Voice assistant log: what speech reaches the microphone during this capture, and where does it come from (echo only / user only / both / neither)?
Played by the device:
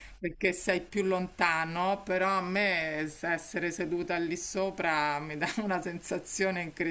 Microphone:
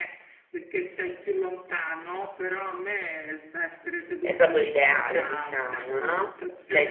both